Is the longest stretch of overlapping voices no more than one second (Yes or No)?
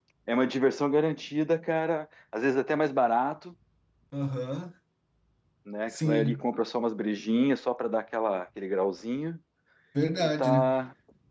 Yes